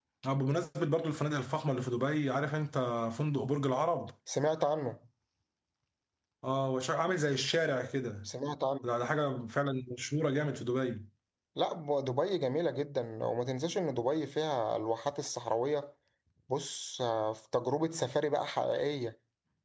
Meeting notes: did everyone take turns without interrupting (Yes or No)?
Yes